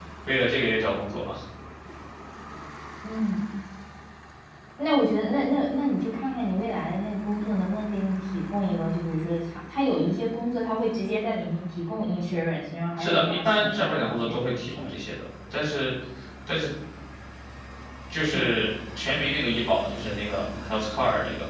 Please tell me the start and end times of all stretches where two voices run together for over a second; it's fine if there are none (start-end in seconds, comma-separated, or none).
13.0-15.0